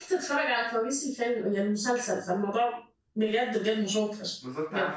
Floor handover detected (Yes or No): Yes